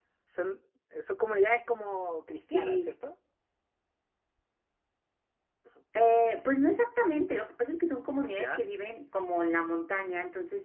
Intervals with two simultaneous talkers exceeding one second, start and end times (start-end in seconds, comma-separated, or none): none